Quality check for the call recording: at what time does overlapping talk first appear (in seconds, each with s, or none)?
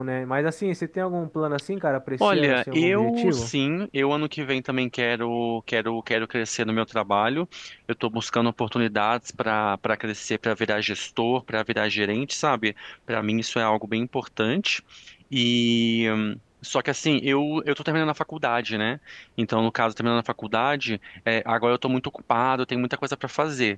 2.2 s